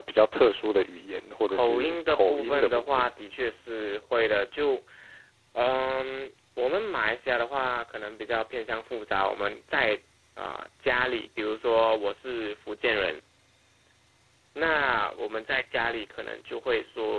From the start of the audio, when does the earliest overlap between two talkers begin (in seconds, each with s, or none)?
1.5 s